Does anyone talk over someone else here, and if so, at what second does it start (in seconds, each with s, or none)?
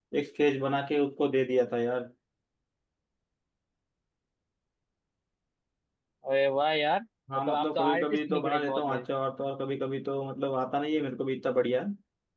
7.3 s